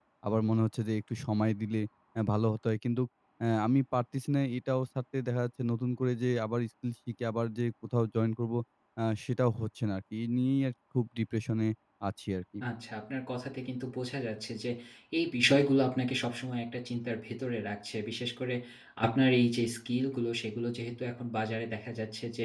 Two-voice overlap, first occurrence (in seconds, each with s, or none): none